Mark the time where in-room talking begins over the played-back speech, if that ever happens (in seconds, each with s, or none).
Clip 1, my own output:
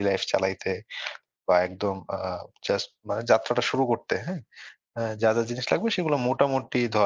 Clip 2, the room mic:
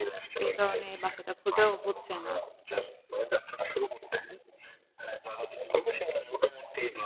0.4 s